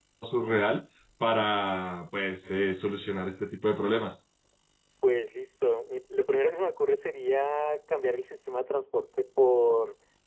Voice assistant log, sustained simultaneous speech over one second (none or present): none